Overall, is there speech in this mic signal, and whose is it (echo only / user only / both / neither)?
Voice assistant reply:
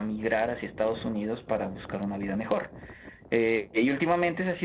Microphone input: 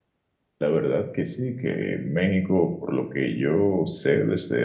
user only